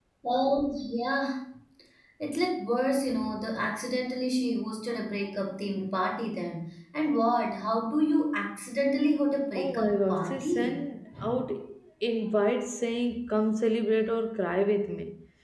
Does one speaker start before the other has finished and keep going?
Yes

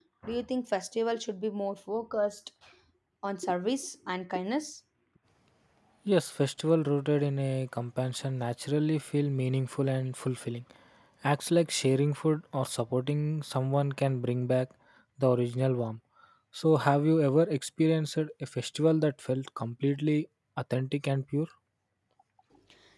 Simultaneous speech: No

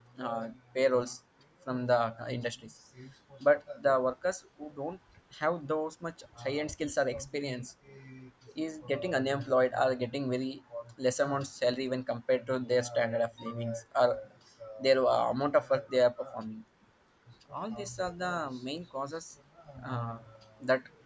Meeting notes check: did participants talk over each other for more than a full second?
No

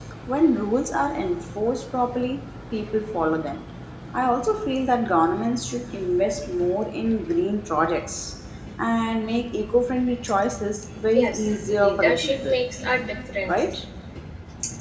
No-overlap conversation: No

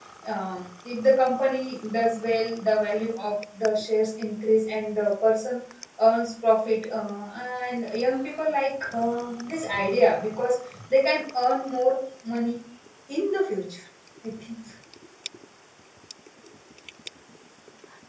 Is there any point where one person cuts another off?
No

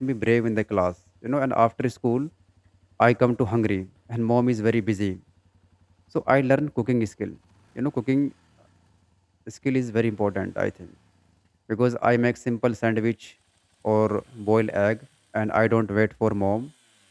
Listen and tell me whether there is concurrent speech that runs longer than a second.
No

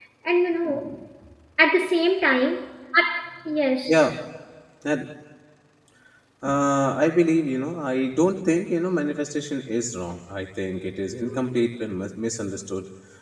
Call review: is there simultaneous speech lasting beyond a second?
No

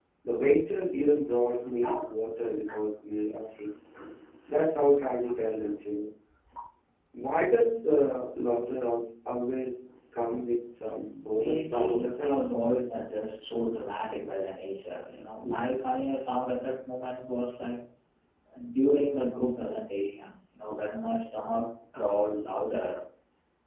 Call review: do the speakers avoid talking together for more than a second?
No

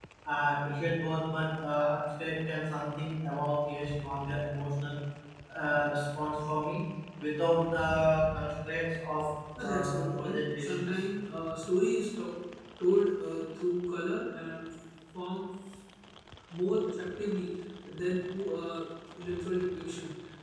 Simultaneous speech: Yes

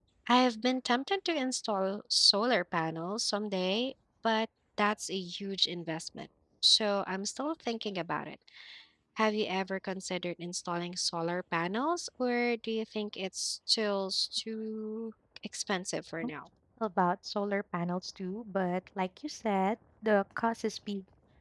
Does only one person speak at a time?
Yes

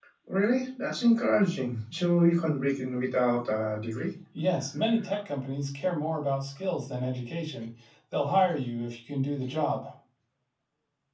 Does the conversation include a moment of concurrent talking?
No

